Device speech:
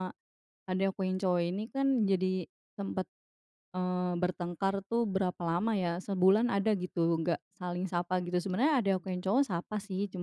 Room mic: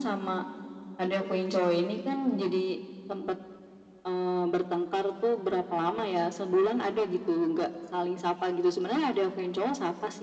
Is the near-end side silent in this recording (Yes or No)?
No